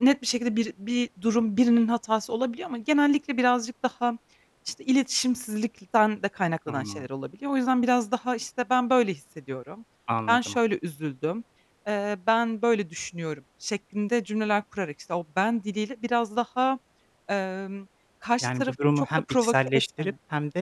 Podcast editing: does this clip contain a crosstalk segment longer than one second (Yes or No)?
Yes